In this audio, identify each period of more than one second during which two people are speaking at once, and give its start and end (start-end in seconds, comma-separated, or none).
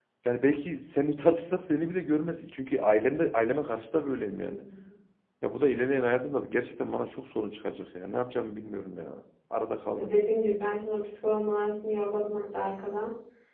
none